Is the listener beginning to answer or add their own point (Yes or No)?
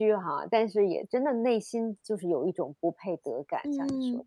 Yes